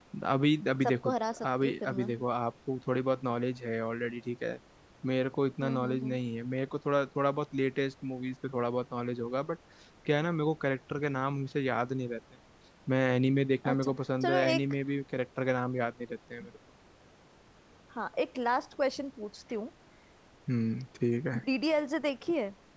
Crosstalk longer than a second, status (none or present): present